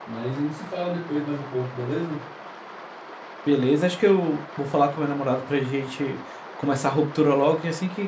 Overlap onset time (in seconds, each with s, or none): none